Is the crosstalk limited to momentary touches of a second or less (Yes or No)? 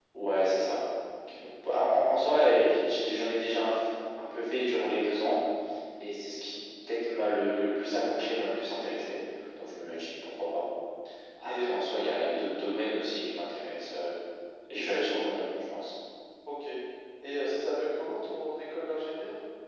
Yes